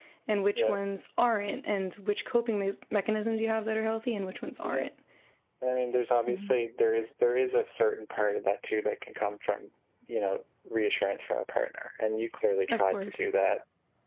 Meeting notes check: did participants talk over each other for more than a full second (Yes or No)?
No